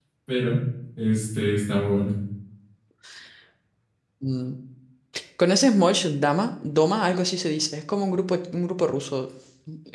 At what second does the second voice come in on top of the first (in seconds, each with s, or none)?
none